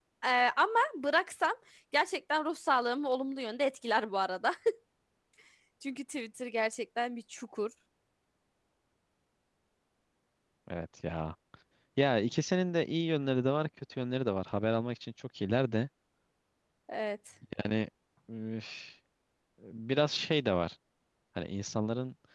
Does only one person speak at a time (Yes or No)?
Yes